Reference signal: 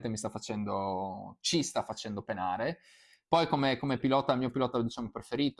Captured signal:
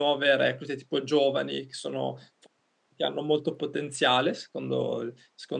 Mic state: user only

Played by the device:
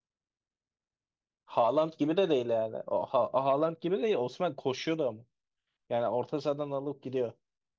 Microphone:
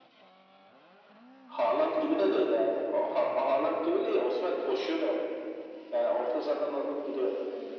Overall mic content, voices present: echo only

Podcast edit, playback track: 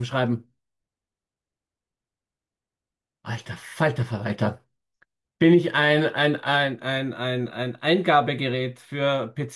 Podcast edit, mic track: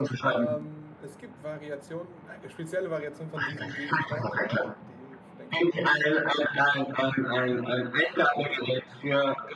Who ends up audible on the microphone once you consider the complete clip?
both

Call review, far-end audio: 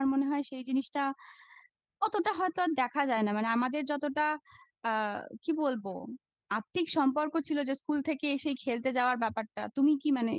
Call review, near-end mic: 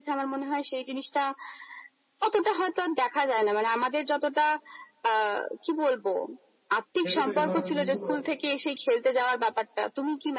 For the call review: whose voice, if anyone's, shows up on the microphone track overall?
both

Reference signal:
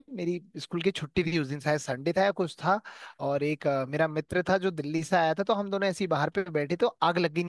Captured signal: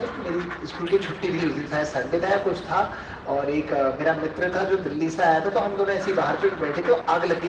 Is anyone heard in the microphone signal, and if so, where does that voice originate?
echo only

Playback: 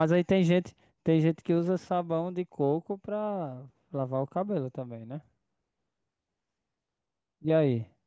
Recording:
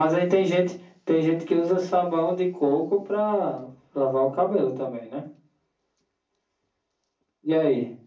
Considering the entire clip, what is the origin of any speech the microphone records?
echo only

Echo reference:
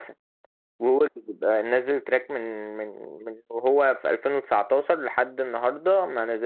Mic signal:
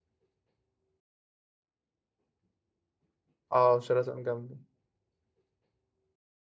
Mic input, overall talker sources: user only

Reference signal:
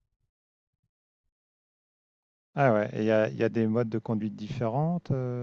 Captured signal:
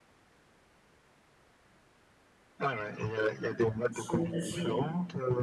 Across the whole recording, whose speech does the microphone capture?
both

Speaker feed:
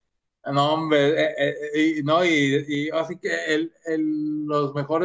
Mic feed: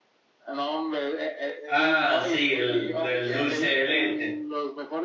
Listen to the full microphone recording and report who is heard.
both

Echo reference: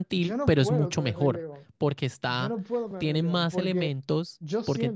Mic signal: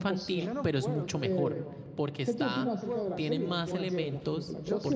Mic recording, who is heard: both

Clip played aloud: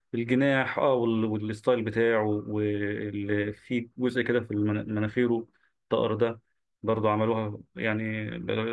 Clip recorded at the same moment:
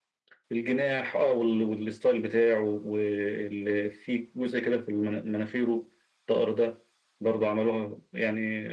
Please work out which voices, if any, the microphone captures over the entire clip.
echo only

